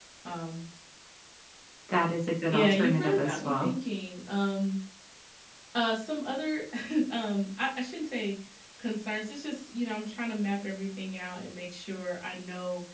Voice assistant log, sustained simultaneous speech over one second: present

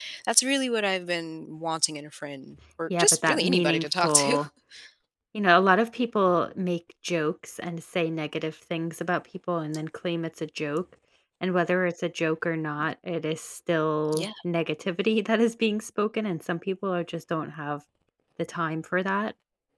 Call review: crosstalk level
present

